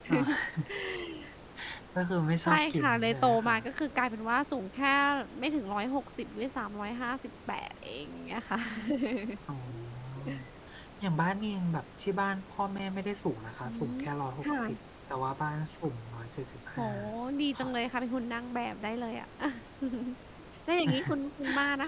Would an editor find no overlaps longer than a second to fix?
No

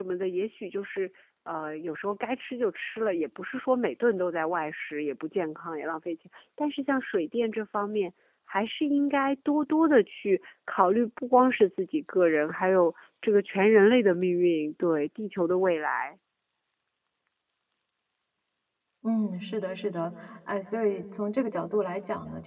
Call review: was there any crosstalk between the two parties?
No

